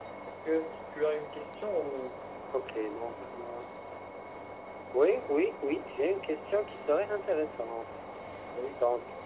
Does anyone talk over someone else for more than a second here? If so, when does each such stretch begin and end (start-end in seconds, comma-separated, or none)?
none